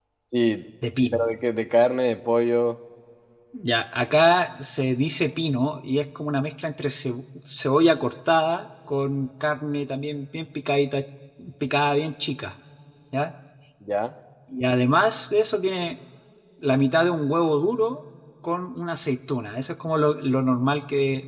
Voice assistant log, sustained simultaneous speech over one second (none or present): none